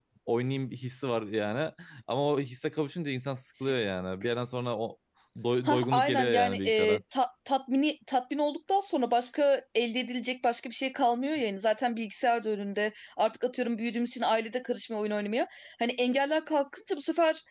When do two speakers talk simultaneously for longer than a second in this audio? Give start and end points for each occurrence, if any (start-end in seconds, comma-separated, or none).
5.7-7.0